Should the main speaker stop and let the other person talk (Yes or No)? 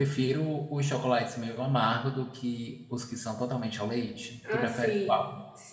Yes